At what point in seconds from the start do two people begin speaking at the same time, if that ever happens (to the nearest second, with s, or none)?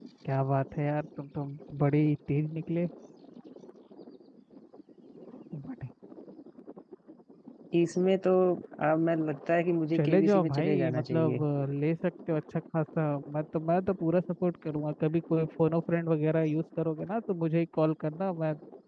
10 s